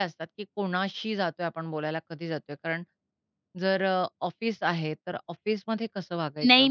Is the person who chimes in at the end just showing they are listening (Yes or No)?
No